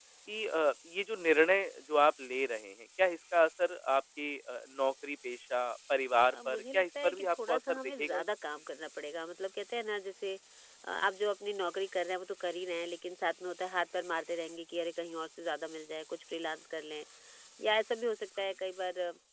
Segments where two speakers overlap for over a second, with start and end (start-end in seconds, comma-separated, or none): 6.3-8.2